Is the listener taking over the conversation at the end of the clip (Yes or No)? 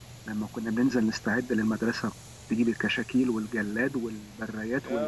Yes